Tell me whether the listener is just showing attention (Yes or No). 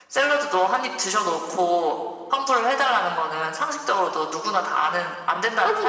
No